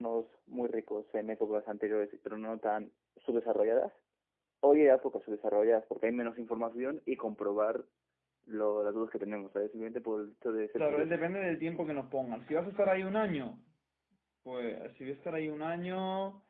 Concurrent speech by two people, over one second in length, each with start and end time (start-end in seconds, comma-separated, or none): none